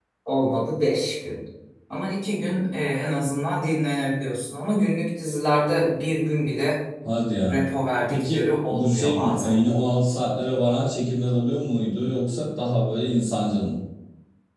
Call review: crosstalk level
present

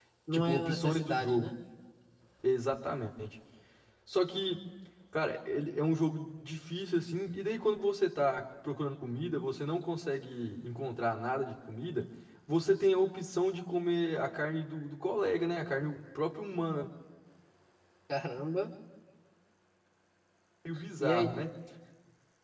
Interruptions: present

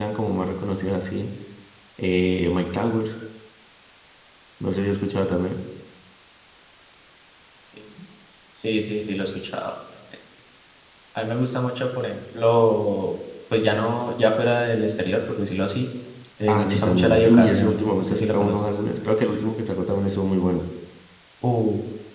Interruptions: present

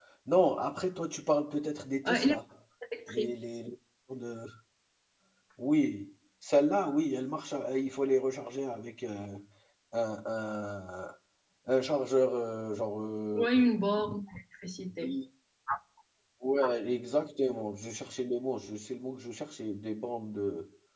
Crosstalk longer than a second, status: none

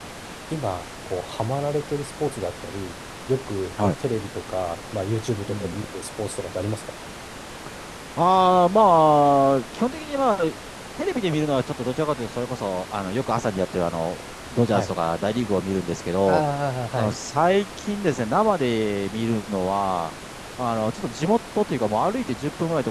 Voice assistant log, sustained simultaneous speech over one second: none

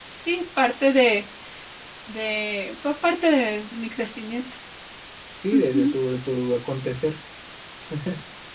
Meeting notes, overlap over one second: none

